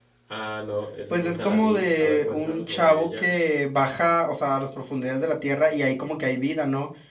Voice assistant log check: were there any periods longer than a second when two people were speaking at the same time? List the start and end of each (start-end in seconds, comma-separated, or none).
1.1-3.3